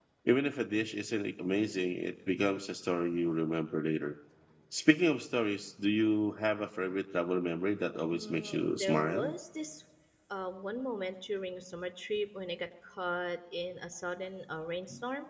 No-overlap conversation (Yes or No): No